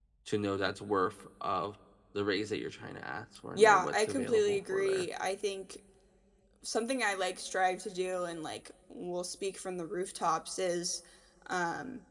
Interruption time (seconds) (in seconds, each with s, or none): 3.5 s